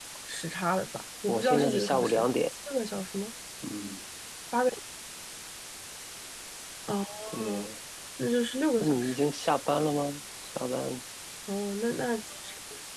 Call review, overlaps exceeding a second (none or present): present